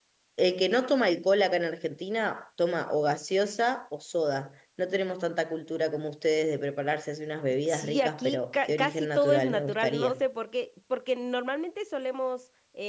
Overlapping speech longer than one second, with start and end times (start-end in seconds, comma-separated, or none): 7.7-10.2